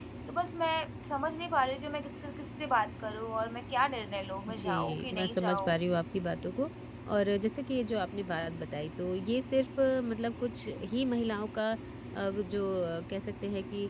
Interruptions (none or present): present